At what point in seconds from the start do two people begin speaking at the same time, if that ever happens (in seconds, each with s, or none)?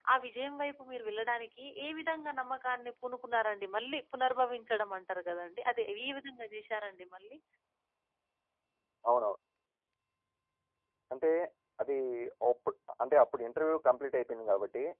none